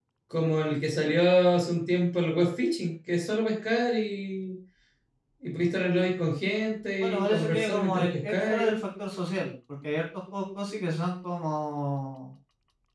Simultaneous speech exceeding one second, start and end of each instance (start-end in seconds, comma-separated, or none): 7.0-8.8